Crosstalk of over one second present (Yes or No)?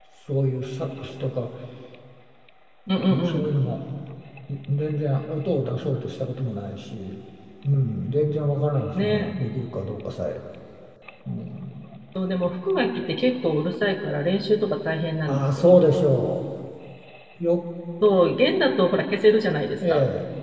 No